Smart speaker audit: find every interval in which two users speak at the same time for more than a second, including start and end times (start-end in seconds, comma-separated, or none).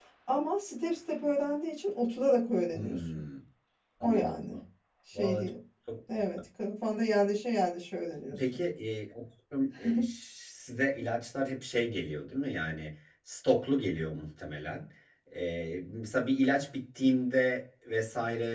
none